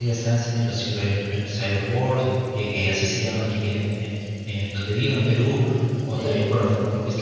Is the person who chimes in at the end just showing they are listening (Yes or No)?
Yes